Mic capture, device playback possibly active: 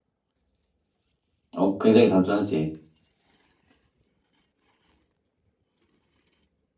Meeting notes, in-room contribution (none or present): present